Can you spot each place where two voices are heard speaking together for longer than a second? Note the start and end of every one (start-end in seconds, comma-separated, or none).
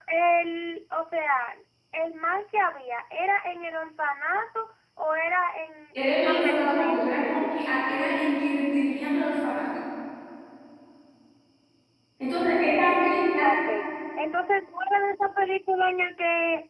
6.0-7.8